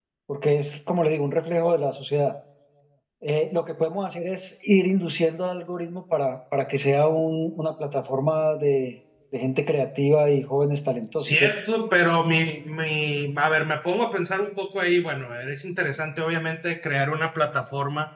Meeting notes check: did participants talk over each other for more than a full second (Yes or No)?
No